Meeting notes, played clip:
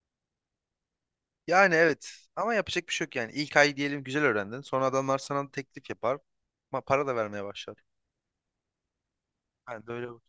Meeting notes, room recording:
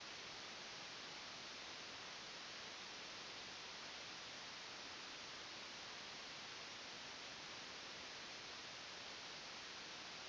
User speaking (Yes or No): No